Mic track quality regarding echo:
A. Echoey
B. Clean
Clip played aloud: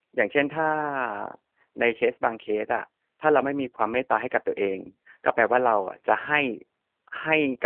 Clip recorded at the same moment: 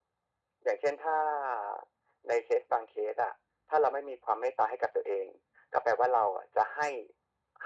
A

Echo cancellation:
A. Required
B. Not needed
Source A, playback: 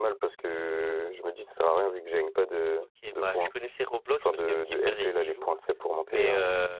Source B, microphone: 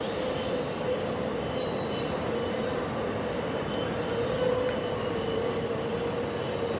B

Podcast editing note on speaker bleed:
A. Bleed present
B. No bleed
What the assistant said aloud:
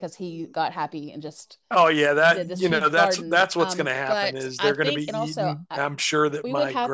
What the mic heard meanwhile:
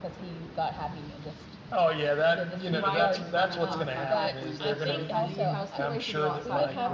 A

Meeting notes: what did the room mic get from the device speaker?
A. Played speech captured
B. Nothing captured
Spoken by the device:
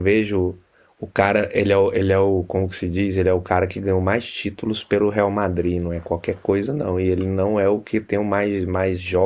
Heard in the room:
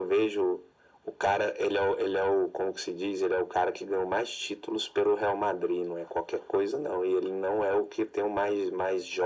A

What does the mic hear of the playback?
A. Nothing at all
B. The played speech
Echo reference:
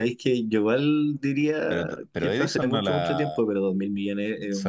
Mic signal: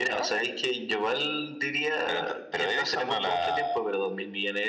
B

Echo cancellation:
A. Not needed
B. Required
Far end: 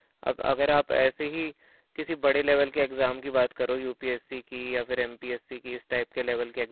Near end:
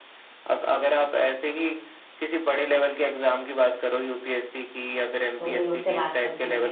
B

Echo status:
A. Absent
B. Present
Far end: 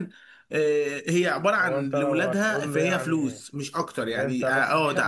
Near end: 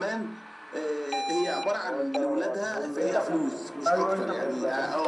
B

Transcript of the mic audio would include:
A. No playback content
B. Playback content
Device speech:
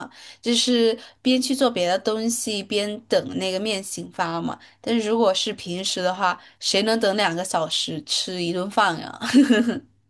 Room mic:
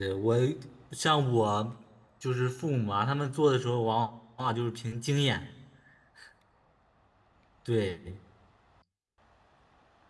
A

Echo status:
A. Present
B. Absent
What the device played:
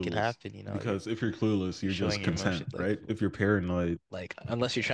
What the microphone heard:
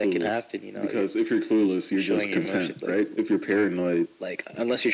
A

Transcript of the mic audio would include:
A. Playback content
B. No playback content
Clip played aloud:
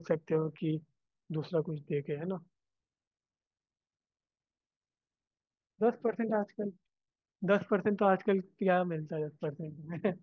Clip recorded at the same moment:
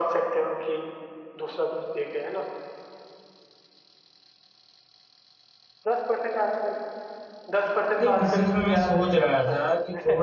A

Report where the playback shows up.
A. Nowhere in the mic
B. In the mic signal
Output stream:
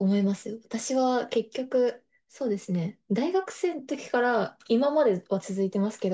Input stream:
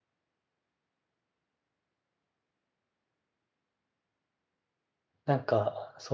A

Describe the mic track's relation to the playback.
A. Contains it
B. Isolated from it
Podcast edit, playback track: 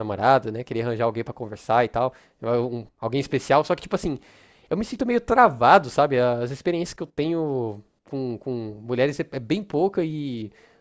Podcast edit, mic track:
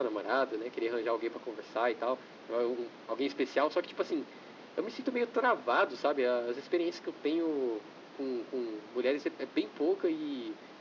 A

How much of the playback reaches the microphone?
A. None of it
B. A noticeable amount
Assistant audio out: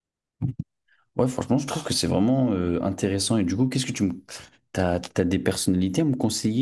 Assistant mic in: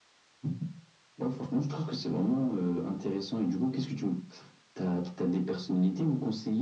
B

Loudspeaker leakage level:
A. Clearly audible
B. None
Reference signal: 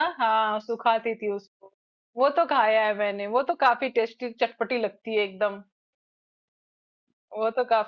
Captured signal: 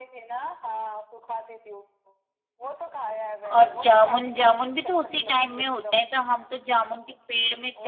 A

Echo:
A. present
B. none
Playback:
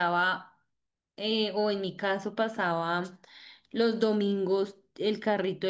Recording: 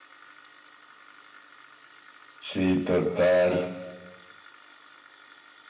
B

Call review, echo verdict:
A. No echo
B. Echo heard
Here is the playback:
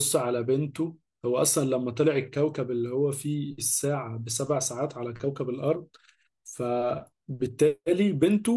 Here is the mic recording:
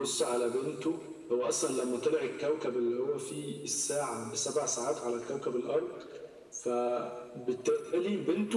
B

